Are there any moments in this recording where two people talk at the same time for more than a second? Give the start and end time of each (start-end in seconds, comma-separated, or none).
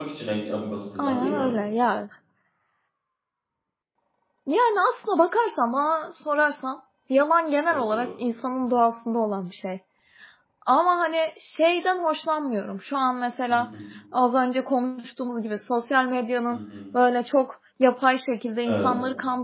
none